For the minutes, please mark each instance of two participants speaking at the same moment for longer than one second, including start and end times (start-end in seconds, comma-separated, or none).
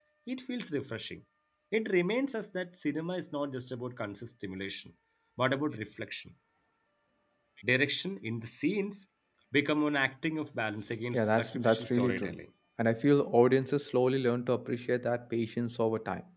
11.2-12.4